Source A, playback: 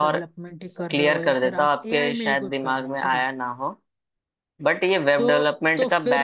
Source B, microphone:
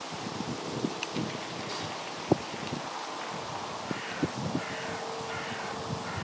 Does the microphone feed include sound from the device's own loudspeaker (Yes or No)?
No